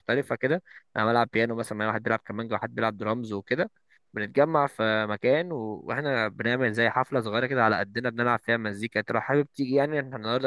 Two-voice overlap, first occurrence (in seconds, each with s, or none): none